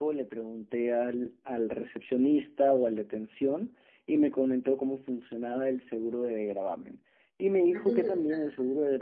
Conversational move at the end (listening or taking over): listening